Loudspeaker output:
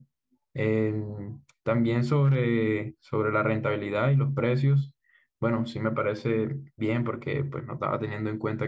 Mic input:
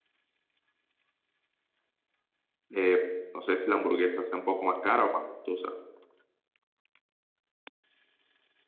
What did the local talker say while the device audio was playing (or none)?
Eh, no sé si la hamburguesa sea un poco más cara o más costosa.